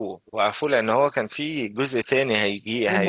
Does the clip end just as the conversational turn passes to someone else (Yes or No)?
Yes